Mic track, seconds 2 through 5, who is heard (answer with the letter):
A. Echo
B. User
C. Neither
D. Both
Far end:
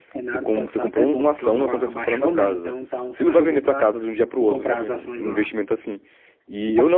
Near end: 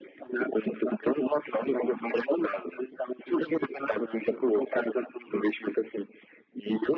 A